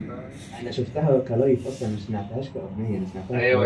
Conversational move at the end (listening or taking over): taking over